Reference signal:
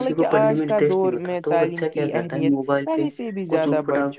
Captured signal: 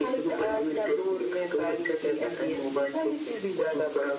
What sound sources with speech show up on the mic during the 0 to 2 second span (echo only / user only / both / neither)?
echo only